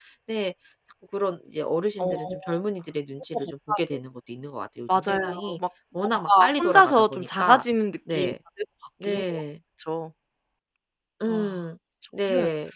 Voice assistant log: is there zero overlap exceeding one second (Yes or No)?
No